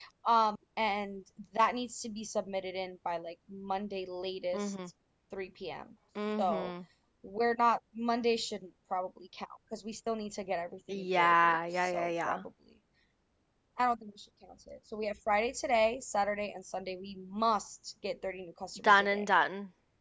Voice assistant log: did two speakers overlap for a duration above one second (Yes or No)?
Yes